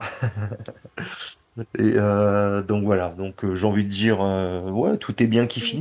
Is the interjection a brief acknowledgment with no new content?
Yes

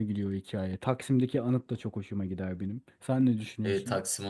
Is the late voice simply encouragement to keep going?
No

